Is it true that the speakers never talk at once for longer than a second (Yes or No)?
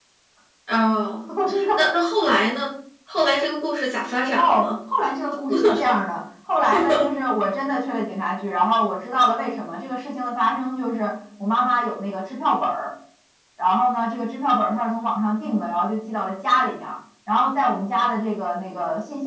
Yes